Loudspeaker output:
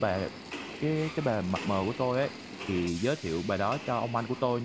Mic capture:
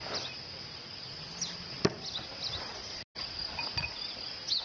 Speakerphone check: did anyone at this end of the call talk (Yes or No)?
No